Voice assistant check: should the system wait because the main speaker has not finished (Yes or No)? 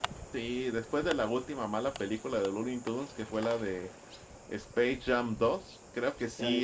Yes